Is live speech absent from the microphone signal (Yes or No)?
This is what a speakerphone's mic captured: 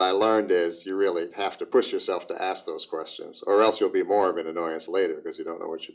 Yes